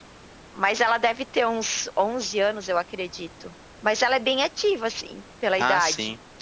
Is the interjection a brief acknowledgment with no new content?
No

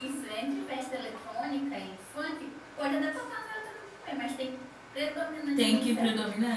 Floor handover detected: Yes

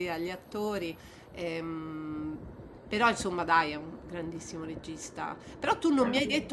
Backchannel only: Yes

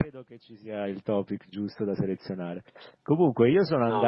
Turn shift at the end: No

